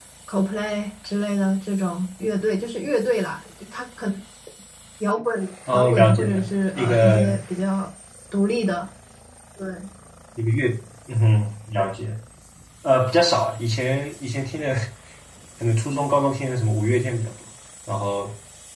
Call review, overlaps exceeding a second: present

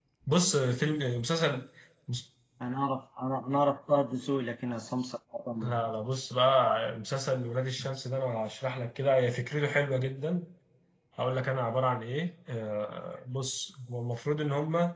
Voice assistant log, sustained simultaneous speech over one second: none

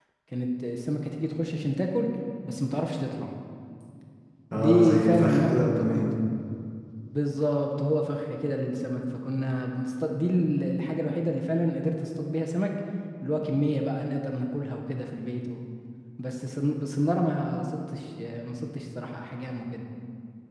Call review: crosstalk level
present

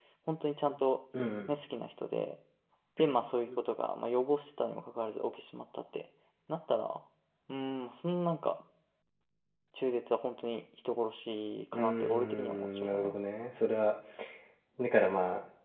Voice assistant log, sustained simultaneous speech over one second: present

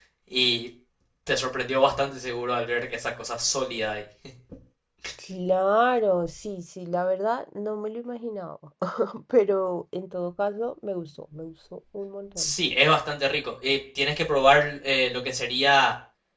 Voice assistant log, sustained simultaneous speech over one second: none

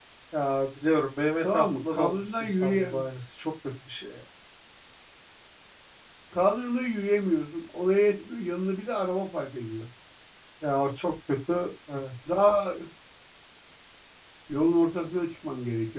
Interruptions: present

